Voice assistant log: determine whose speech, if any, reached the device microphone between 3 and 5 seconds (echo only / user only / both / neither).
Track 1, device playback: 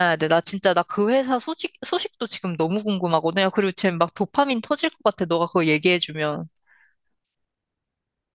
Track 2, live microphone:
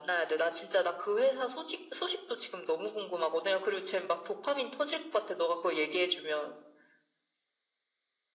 echo only